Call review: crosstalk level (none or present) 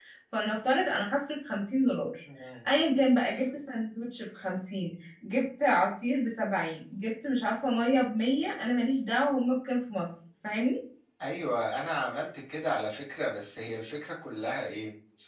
none